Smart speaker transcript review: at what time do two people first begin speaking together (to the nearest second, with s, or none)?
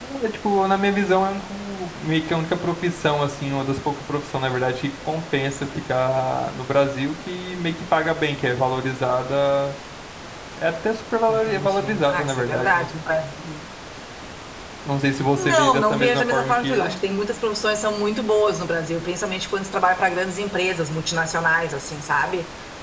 11 s